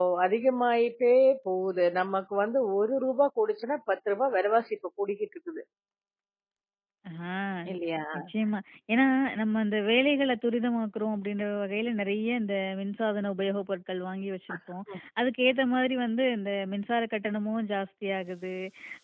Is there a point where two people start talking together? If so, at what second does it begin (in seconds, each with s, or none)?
none